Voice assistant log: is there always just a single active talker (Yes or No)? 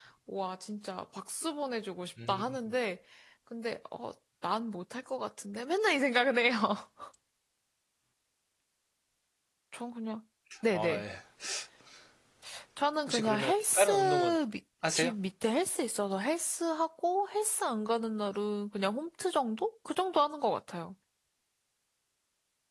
No